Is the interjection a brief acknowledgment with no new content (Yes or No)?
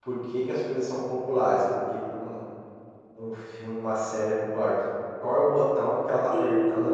Yes